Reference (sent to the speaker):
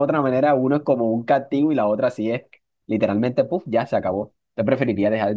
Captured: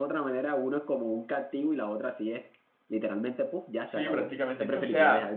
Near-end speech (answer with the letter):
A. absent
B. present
B